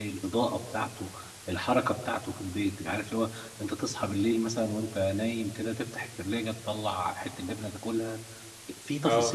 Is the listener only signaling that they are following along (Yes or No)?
Yes